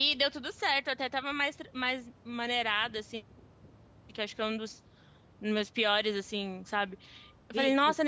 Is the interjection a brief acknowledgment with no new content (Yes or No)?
Yes